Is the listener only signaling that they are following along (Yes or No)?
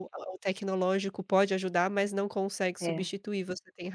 Yes